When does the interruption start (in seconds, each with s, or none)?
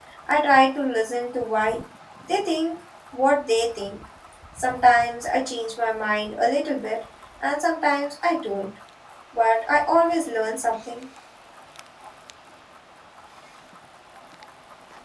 none